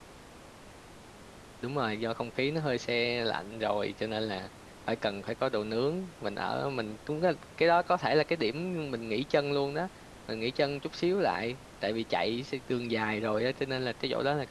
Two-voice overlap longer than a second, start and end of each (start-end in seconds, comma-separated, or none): none